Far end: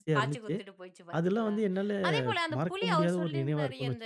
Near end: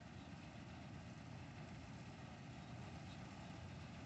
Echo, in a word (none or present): none